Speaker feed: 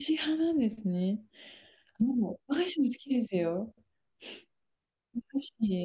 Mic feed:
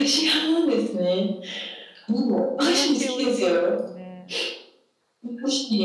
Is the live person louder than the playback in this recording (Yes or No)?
No